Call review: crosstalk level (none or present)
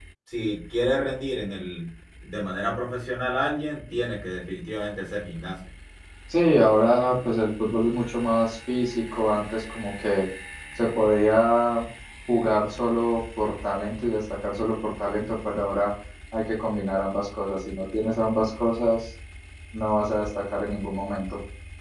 none